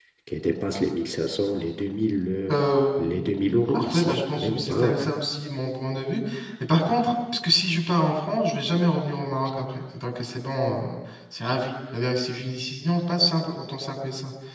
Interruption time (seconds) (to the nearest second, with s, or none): 3 s